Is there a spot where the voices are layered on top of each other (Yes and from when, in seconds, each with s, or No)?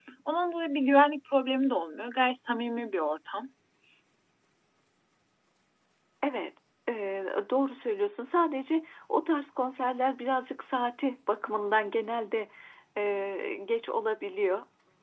No